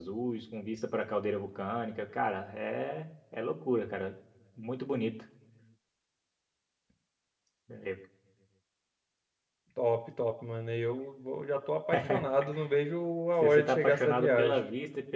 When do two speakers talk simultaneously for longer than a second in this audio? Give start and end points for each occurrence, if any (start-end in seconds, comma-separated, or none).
13.4-14.6